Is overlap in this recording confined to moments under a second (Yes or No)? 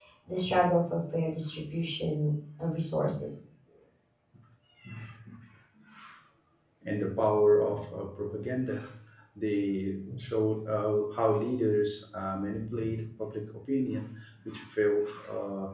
Yes